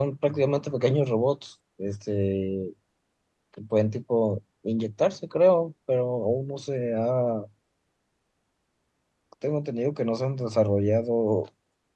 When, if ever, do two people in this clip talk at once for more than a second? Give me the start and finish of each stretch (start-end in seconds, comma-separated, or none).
none